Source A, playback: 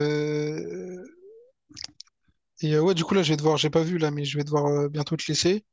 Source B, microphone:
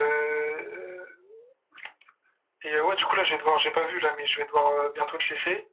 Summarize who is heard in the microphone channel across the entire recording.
echo only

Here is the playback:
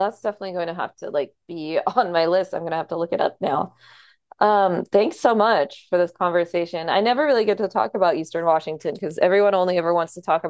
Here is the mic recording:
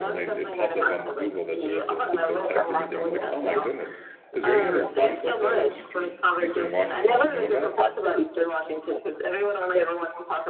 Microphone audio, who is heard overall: both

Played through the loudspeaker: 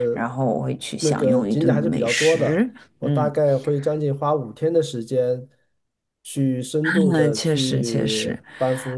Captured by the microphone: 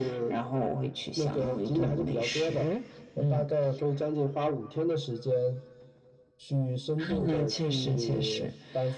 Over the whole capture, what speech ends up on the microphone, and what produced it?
echo only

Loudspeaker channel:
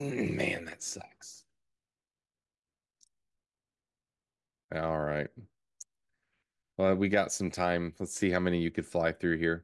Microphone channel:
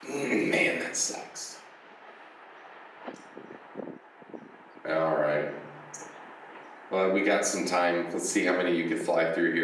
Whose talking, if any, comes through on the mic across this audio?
echo only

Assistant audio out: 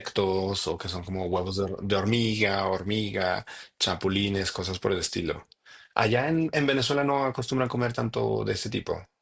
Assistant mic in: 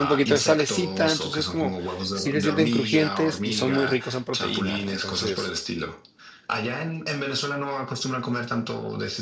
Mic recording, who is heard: both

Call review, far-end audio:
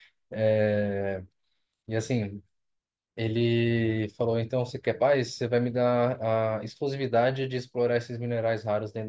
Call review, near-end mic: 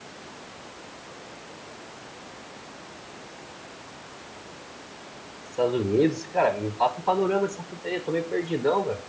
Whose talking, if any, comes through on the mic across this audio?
user only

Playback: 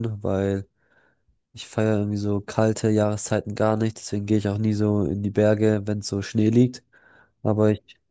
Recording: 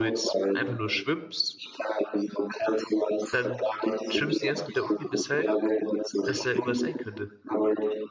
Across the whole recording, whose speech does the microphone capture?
both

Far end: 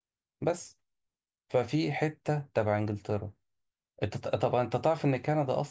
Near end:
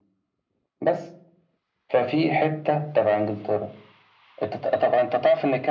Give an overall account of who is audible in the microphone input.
echo only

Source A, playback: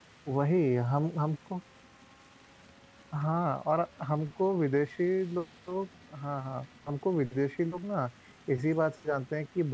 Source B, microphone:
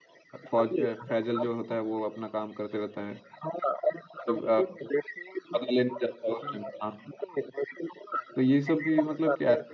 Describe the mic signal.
both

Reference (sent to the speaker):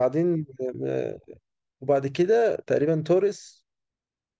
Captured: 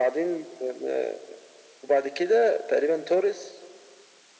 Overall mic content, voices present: echo only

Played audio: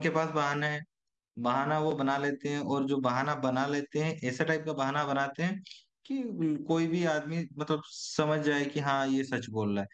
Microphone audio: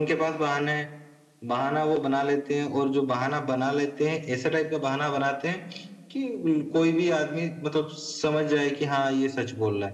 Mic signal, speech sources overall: echo only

